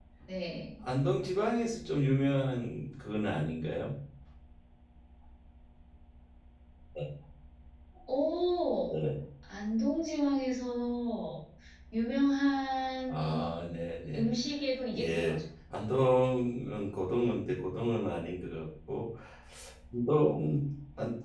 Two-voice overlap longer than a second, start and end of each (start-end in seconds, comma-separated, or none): none